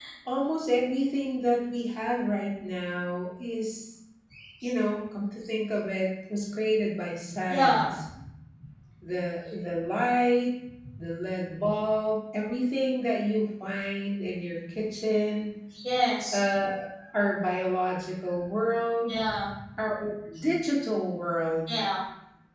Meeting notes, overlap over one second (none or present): none